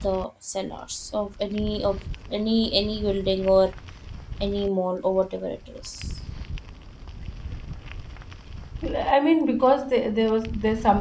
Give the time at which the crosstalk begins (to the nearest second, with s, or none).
none